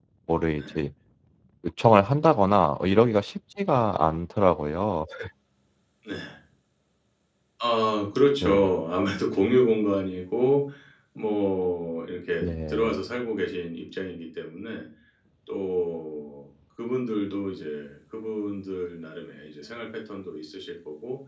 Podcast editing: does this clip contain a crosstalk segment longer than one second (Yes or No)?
No